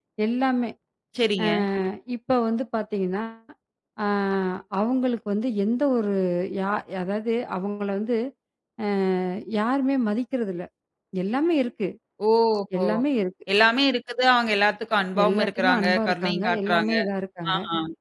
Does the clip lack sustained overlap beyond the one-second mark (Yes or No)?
No